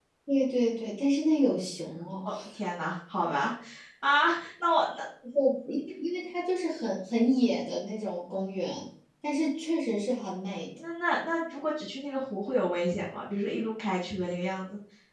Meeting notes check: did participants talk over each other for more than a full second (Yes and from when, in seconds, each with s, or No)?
No